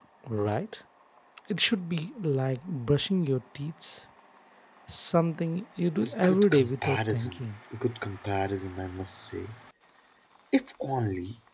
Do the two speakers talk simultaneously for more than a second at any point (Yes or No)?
Yes